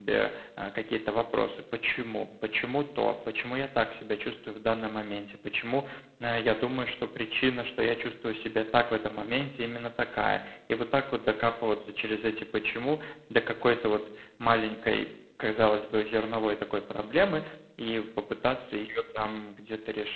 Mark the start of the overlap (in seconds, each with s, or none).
none